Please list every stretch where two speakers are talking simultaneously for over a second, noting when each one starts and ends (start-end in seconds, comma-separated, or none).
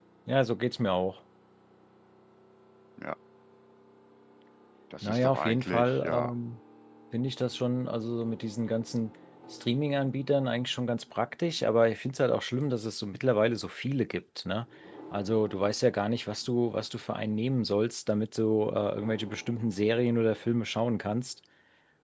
5.0-6.3